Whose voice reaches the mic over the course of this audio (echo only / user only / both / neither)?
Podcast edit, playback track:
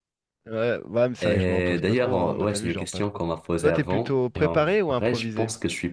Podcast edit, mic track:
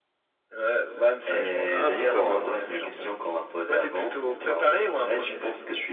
both